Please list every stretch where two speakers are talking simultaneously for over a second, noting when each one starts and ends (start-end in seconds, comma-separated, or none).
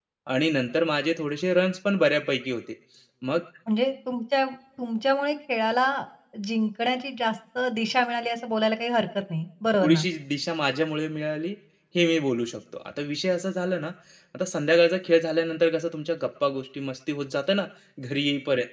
none